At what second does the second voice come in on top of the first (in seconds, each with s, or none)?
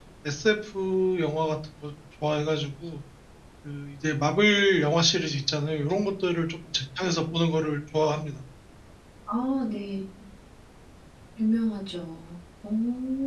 none